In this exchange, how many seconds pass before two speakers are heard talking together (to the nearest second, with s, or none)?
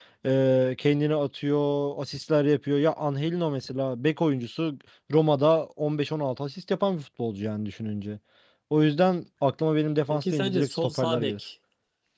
10 s